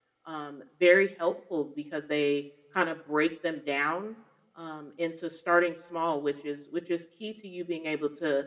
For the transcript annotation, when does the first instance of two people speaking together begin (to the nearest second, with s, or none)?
none